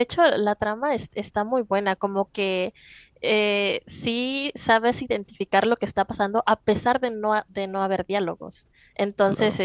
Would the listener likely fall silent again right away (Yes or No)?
Yes